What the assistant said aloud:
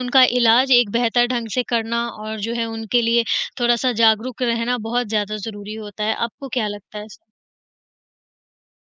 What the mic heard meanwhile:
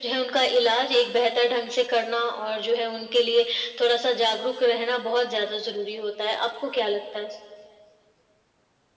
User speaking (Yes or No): No